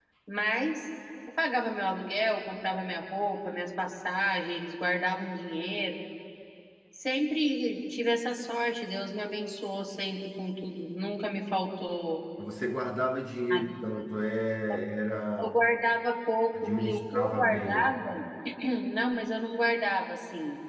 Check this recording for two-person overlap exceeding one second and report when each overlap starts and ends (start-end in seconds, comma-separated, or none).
16.5-18.0